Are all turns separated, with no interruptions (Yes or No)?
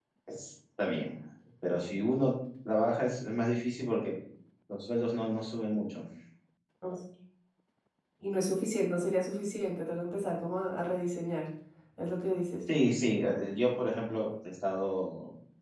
Yes